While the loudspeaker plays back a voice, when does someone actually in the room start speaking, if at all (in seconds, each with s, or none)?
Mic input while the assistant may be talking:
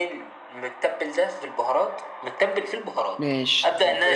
3.2 s